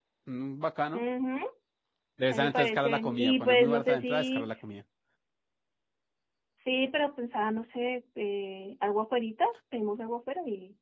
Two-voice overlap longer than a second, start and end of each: 2.3-4.5

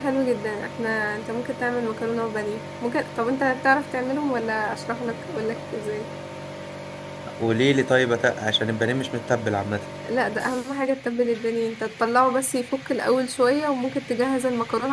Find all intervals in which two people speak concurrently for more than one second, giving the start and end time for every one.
none

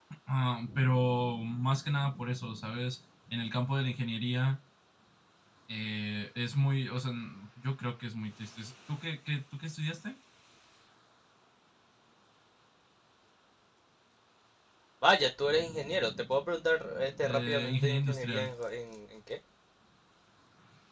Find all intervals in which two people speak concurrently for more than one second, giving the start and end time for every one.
17.2-18.5

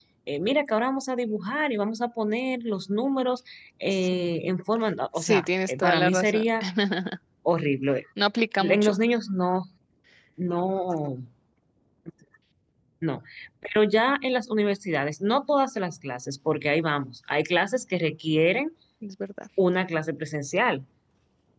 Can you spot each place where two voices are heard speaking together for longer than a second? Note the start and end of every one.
5.2-6.5

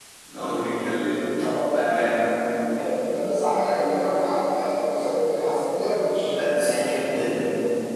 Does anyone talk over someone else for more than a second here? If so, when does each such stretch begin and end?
none

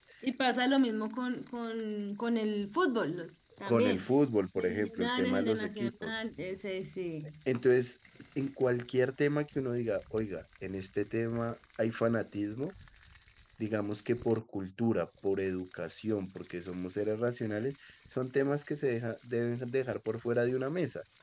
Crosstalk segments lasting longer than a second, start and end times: 4.6-6.1

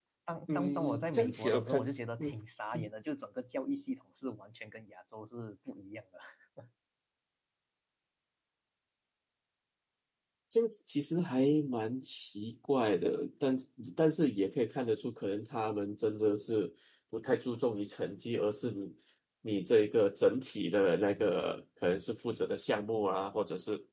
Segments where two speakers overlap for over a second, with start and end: 0.6-1.8

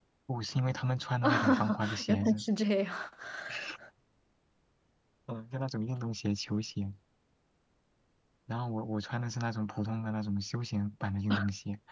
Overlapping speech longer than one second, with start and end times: 1.2-2.4

